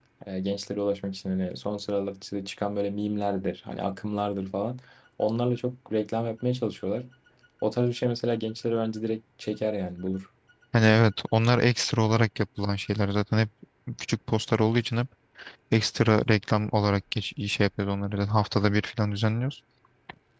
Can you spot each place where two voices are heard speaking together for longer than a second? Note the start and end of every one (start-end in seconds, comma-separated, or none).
none